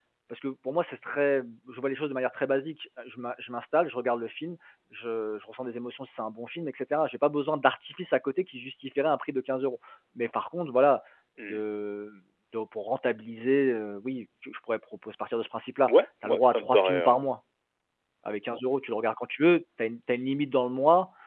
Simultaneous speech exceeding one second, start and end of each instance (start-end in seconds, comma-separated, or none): 15.9-17.2